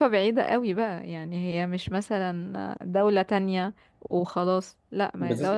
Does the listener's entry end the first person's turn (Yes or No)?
No